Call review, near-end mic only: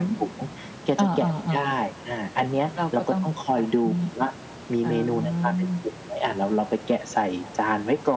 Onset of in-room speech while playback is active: none

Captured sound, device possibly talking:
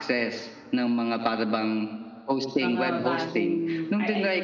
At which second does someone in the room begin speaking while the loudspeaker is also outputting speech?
2.6 s

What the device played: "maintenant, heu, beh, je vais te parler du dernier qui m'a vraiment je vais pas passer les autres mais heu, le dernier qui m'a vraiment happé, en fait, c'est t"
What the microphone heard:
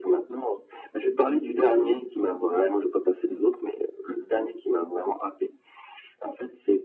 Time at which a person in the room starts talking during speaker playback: none

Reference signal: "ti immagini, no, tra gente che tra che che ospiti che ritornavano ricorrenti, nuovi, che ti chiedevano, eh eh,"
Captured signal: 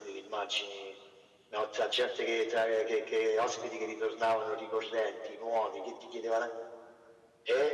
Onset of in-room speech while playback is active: none

